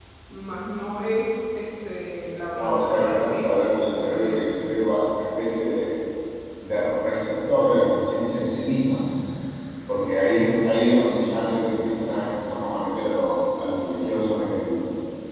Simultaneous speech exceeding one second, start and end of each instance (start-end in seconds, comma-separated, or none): 2.6-4.6